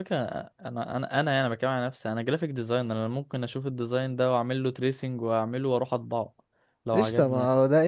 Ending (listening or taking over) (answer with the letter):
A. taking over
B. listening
A